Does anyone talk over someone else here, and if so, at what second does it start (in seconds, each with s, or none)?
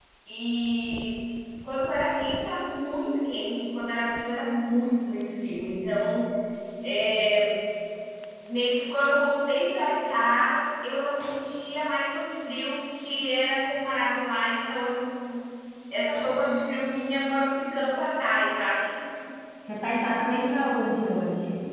none